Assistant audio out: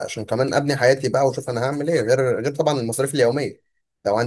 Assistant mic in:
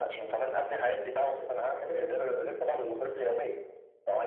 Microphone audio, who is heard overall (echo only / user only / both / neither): echo only